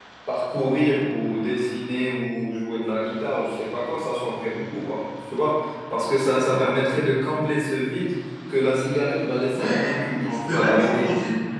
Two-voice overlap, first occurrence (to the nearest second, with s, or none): 10 s